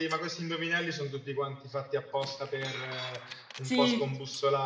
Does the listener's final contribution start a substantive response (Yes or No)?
No